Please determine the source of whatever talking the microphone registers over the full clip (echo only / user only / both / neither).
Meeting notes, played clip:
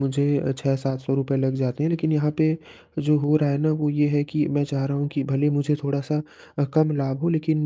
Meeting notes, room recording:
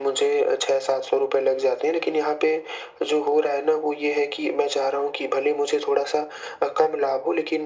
echo only